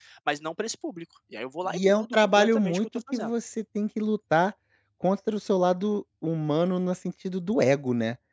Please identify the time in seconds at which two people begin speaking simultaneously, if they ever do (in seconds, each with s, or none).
1.6 s